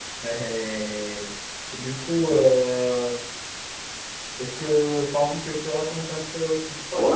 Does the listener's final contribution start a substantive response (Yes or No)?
Yes